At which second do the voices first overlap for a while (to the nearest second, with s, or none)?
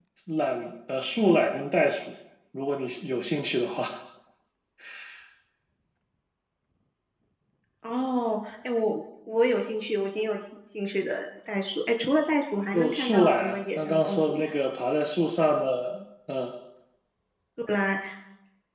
13 s